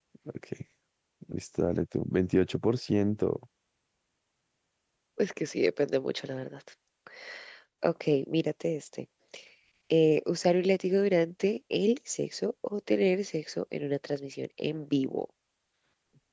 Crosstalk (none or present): none